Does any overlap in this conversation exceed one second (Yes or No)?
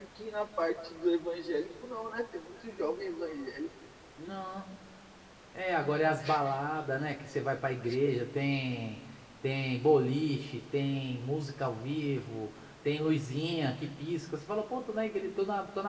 No